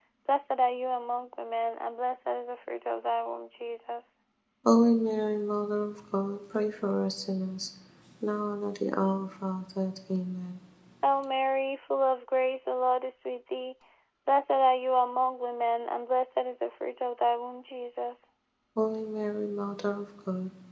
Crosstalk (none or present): none